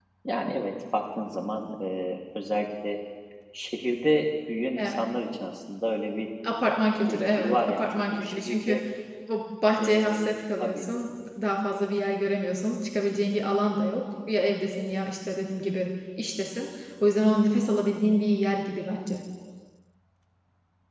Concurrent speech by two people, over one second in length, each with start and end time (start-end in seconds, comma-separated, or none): 7.0-8.8